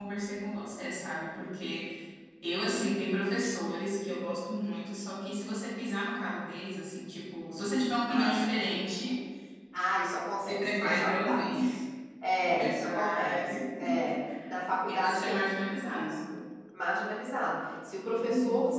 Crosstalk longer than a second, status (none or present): present